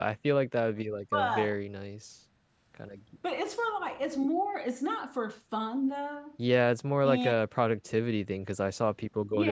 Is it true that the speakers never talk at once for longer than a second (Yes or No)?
Yes